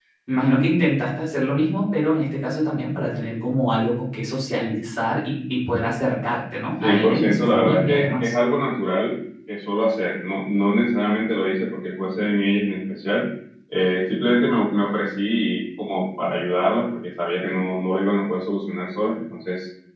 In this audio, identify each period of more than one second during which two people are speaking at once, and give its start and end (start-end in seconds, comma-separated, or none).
6.8-8.3